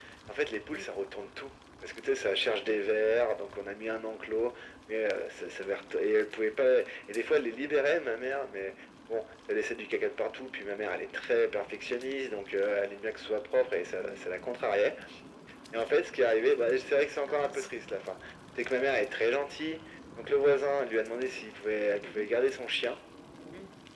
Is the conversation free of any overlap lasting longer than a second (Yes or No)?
Yes